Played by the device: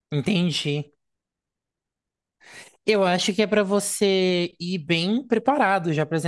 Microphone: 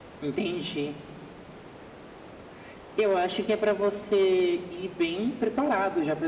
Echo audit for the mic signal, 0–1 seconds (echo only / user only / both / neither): echo only